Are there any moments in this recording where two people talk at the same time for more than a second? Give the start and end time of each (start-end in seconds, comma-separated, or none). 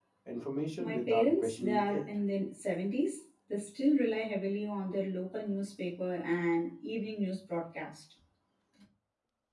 0.8-2.0